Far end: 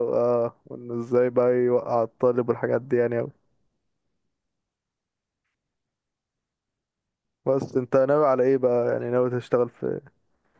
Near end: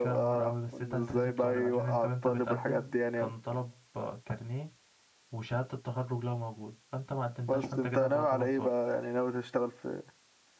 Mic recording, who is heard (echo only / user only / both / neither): both